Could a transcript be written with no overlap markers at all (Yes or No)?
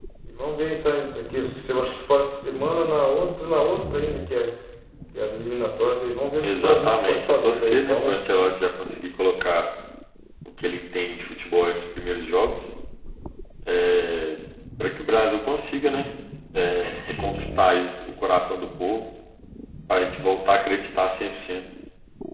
No